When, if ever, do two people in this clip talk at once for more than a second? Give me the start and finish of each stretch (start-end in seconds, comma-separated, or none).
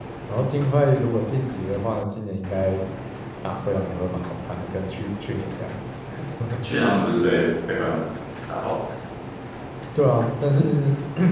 none